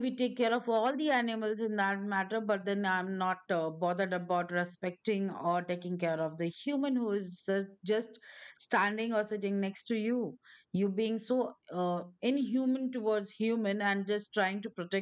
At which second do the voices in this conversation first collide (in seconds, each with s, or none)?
none